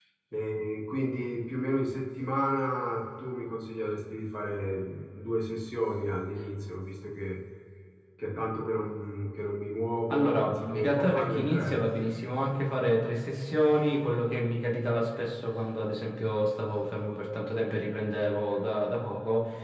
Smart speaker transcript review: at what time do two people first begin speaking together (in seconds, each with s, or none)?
10.1 s